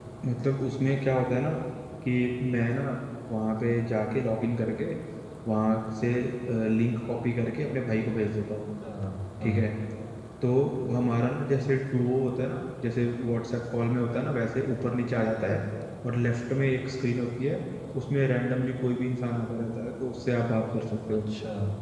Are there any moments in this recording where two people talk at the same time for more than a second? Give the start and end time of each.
none

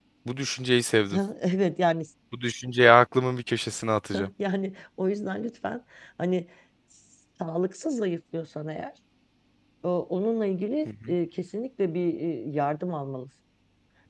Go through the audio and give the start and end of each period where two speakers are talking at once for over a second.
none

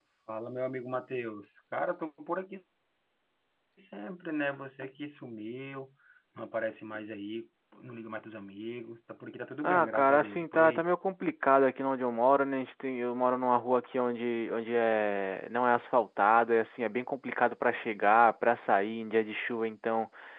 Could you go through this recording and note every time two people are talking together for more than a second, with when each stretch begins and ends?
9.6-10.8

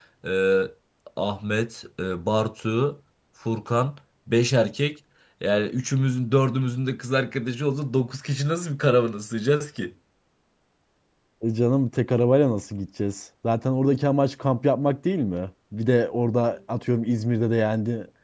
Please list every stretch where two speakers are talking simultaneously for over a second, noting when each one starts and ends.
none

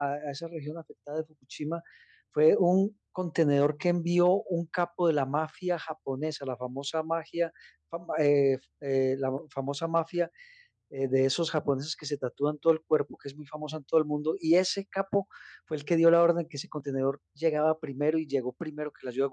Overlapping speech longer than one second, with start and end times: none

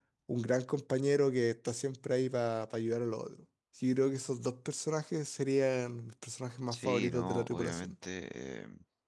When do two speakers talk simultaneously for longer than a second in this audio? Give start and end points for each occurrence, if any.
6.7-7.9

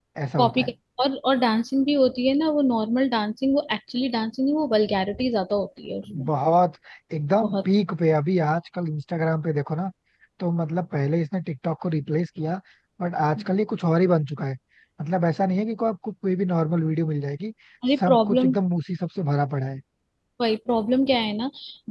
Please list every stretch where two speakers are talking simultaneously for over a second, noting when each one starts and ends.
none

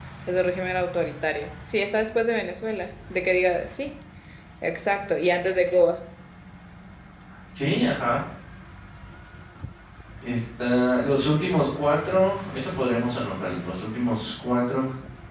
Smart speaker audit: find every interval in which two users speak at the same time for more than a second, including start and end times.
none

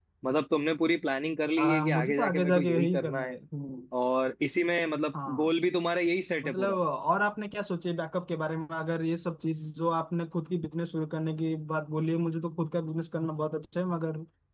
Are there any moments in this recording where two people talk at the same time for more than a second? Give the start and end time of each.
1.6-3.4

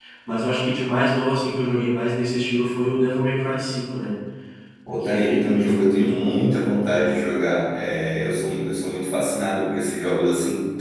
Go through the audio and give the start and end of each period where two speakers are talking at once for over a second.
5.0-6.4

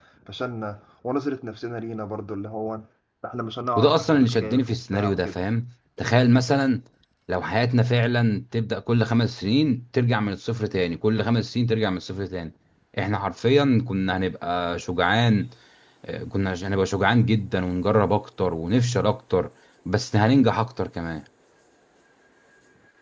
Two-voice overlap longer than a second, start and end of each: 3.8-5.4

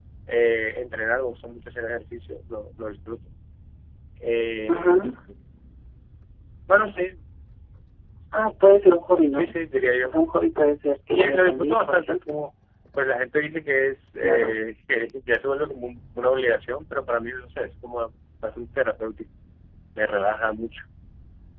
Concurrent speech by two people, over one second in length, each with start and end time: 11.1-12.3

